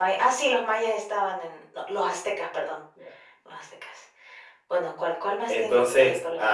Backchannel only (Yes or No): No